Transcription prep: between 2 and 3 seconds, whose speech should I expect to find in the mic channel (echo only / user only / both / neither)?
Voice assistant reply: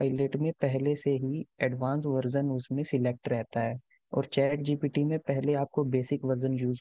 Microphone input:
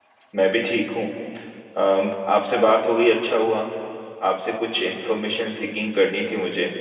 user only